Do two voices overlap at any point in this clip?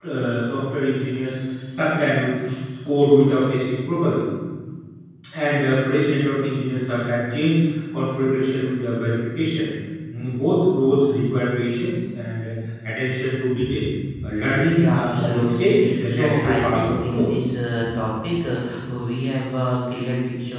Yes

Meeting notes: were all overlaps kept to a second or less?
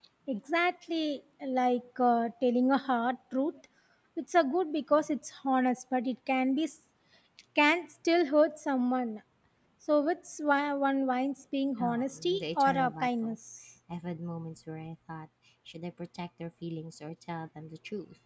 No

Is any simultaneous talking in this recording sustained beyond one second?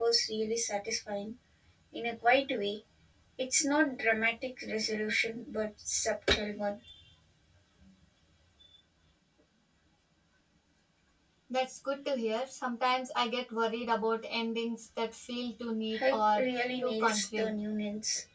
Yes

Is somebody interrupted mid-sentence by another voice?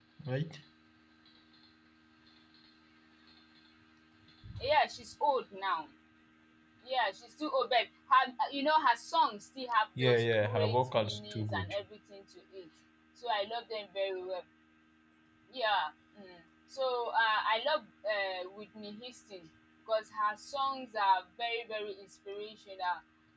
Yes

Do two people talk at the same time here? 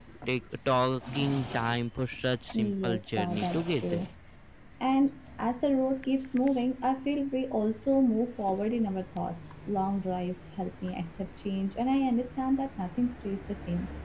Yes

